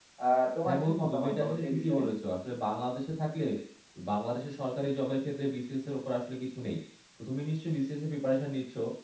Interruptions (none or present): present